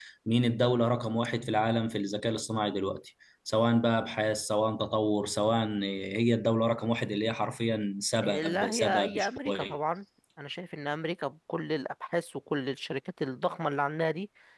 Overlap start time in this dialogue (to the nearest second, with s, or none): 8 s